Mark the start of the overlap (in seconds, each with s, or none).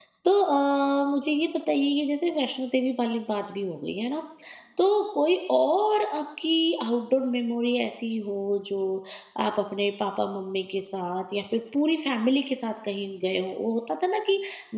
none